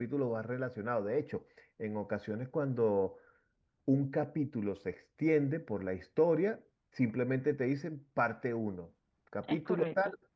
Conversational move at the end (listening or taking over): listening